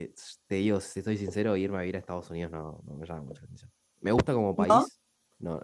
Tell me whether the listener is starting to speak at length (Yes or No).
No